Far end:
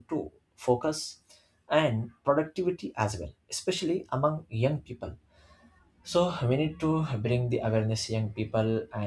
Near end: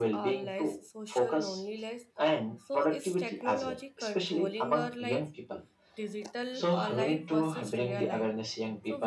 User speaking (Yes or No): Yes